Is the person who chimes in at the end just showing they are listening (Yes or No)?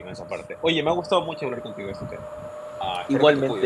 No